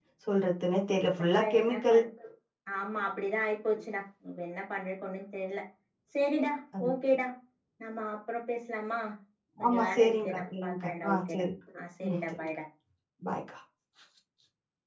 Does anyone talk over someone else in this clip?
Yes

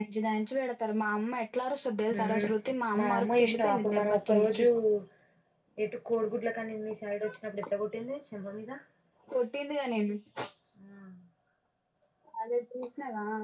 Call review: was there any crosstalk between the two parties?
Yes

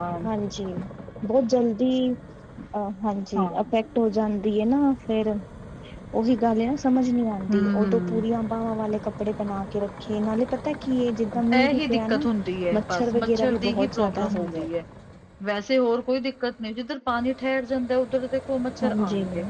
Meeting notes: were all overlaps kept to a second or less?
No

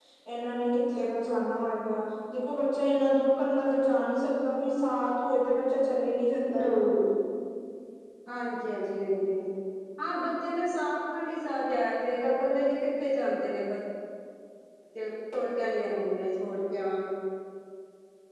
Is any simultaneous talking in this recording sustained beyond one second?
No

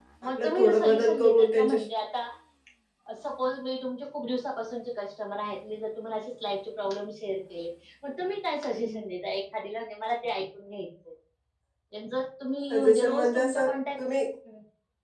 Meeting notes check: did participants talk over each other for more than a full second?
Yes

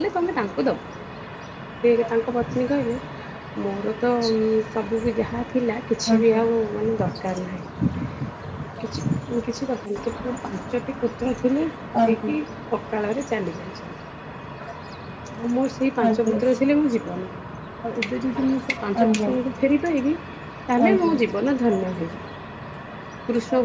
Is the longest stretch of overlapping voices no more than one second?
Yes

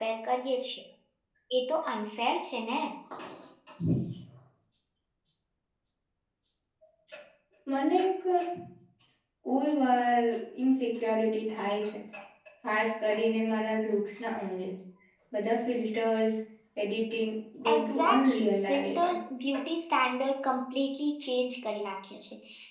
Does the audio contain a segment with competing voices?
Yes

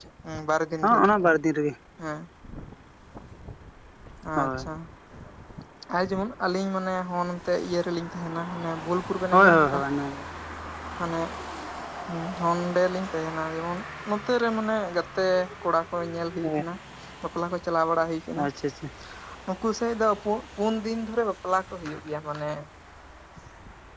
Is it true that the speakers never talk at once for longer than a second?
Yes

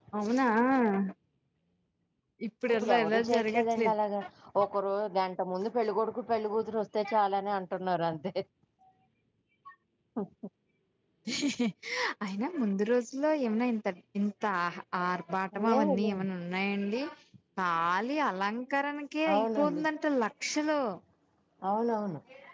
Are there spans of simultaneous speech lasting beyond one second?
Yes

